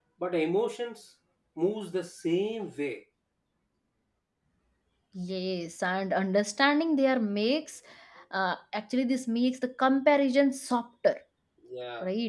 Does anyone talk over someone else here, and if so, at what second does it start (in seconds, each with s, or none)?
none